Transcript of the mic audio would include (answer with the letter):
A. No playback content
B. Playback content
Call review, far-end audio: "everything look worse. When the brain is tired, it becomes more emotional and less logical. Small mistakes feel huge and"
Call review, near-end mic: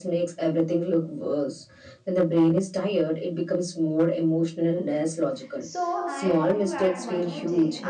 B